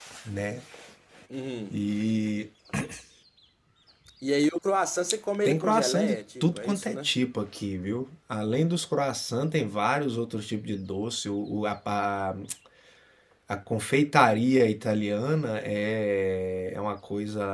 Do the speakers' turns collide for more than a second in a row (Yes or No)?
Yes